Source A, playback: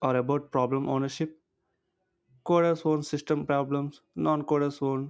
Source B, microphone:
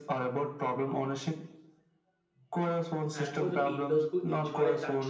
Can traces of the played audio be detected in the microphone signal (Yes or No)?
Yes